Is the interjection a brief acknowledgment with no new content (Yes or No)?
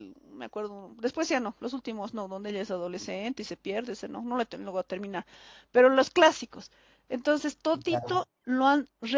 Yes